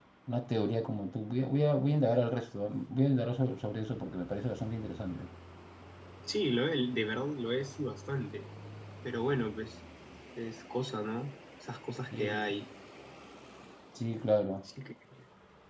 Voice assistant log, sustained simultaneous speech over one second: none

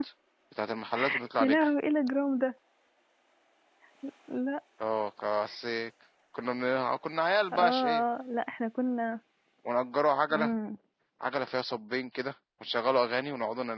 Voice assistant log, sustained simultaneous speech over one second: none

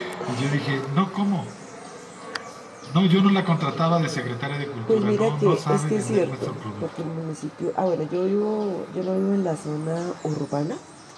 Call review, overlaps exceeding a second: present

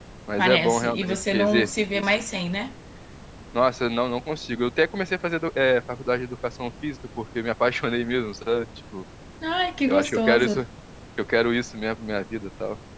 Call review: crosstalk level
present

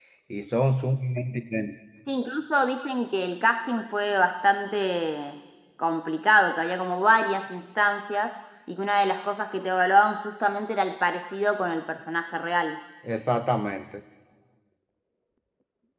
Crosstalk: none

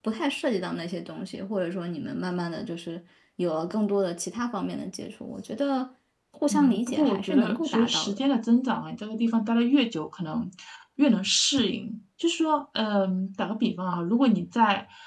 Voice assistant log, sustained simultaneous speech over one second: present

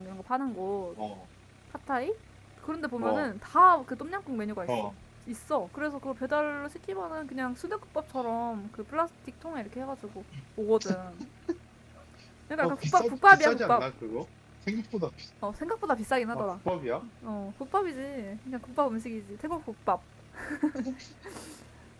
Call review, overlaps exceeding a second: present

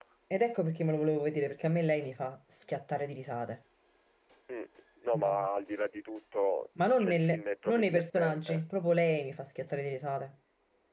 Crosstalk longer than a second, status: present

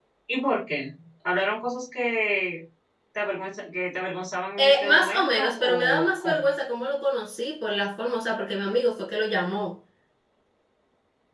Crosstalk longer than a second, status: present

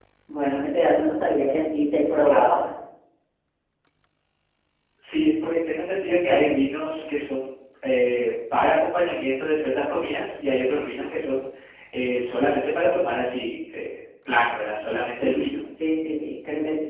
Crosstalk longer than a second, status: none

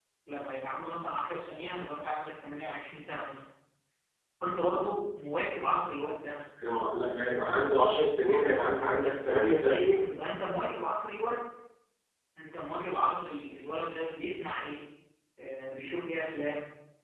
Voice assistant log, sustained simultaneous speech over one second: none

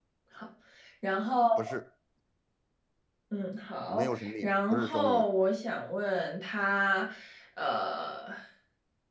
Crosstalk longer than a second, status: present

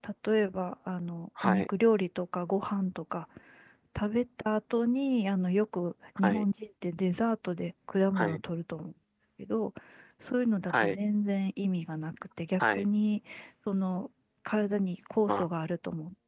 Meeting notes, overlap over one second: none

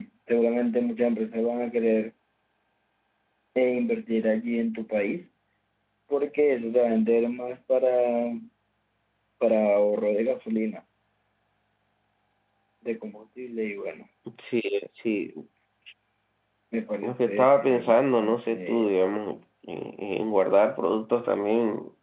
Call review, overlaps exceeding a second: present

